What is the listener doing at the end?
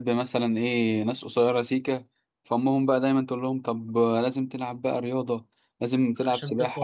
listening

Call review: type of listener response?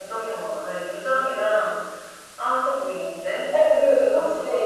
taking over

